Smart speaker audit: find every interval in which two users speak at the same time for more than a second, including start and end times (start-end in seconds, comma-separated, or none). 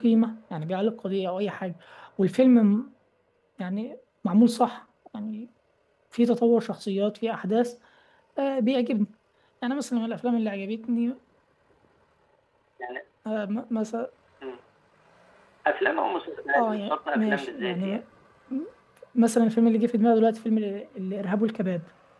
16.6-18.0